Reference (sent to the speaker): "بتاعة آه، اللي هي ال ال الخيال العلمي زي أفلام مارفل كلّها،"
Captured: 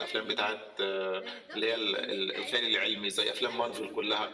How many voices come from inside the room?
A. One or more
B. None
A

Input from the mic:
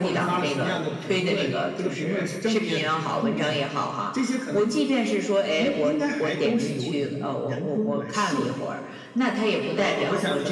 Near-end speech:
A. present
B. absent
B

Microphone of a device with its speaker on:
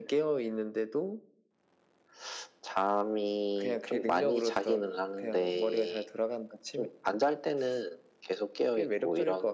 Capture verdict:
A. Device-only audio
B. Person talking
A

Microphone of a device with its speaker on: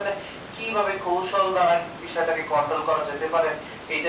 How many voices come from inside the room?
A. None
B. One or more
A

